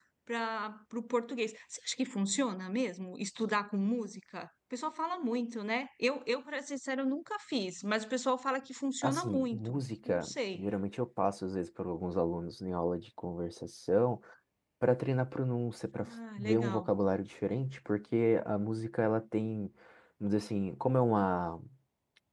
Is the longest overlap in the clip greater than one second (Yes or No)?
Yes